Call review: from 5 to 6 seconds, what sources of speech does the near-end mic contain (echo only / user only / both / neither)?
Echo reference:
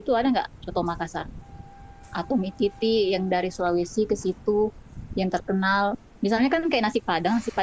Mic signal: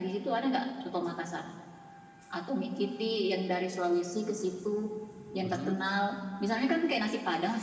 both